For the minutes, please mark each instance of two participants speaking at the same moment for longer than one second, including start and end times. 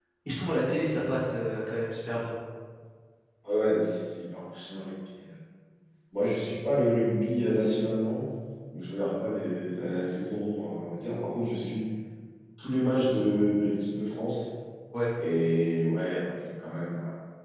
none

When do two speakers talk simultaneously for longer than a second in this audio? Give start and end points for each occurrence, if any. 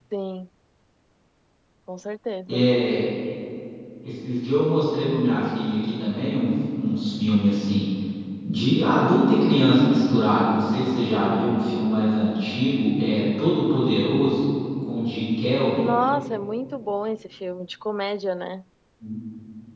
none

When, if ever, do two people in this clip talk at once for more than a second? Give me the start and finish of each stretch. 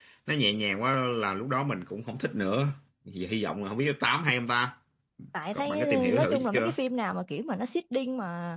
5.5-6.8

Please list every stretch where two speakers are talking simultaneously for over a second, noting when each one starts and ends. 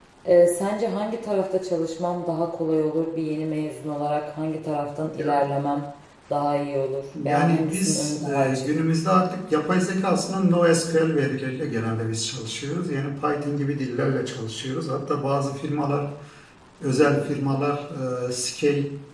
7.2-8.7

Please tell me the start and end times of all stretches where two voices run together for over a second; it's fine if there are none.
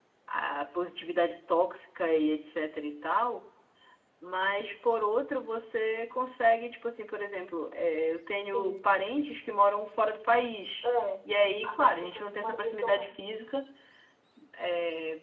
11.6-13.1

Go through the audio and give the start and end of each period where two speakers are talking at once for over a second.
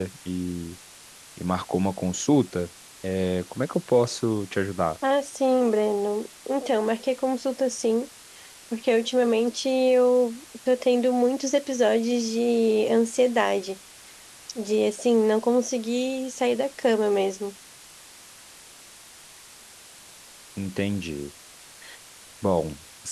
none

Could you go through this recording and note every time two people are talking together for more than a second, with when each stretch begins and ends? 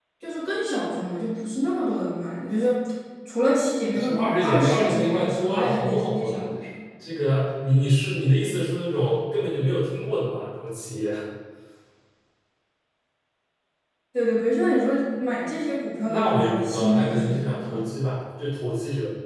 3.9-6.5, 16.0-17.8

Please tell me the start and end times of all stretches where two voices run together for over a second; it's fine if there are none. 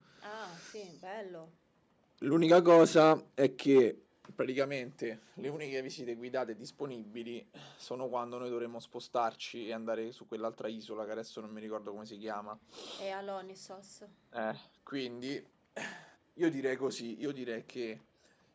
none

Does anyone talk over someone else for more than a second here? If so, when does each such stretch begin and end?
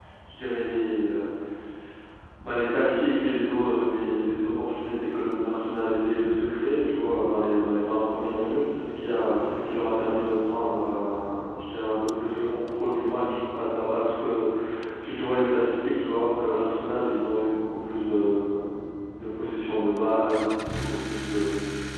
none

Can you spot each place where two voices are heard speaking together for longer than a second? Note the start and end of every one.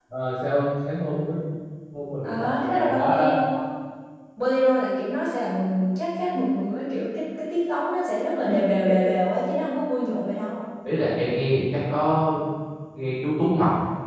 2.2-3.4

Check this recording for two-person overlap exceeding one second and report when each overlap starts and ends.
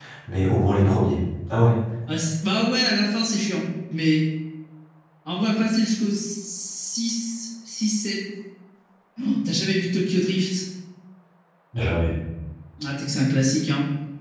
none

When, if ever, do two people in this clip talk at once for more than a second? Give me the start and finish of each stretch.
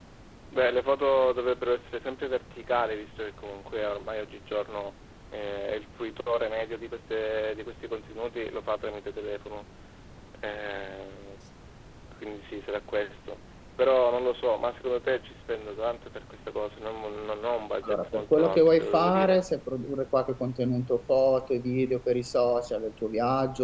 17.9-19.4

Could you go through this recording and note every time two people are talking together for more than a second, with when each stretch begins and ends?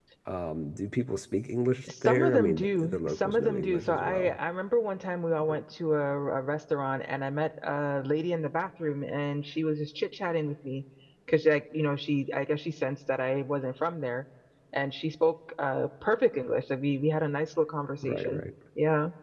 1.9-4.4

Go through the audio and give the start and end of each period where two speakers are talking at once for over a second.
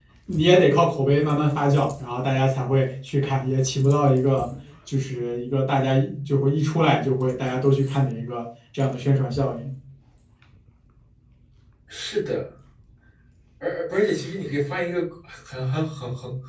none

